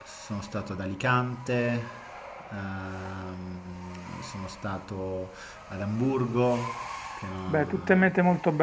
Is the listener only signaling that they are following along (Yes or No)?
No